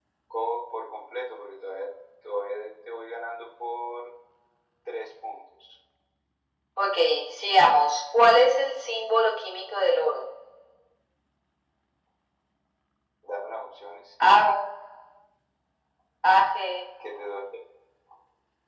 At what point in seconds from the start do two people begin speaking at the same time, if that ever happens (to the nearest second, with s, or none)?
none